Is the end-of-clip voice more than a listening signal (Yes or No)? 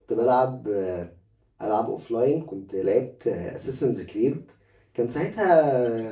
No